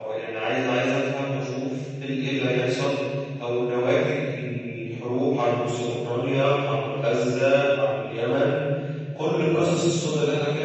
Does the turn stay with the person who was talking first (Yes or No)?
Yes